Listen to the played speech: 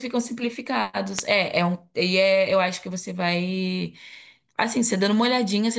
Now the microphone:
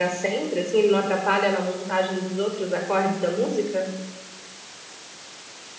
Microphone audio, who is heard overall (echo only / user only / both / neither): user only